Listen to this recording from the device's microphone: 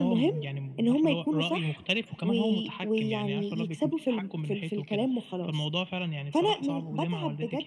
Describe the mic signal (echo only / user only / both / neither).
echo only